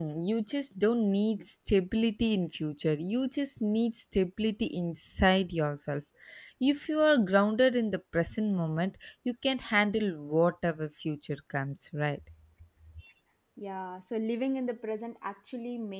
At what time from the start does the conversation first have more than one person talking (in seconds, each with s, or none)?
none